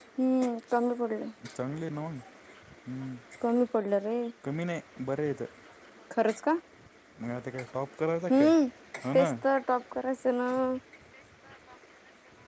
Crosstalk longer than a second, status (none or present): none